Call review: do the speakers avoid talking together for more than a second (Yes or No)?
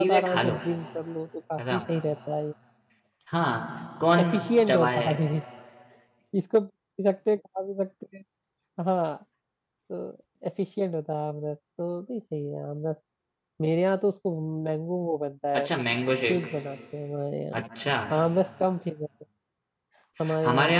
Yes